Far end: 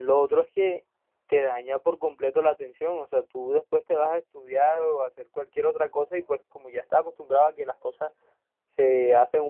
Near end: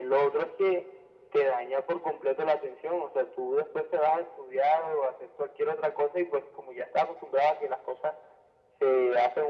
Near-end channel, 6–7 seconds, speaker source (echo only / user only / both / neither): echo only